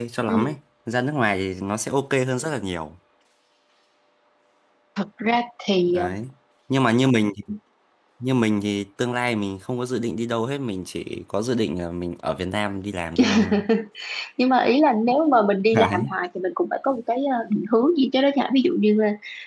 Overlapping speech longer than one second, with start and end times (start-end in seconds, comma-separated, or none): none